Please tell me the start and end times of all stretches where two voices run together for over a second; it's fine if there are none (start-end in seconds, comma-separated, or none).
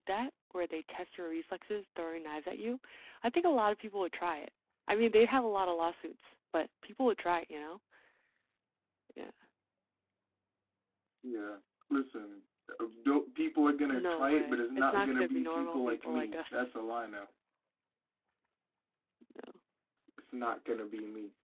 13.9-16.7